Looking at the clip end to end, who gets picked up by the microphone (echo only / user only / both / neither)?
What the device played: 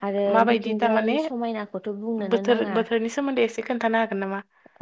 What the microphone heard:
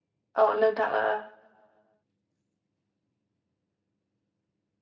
user only